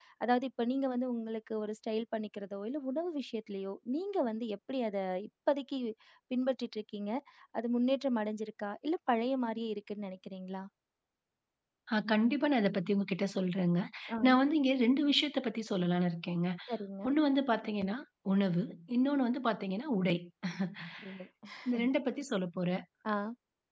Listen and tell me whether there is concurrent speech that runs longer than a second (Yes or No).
No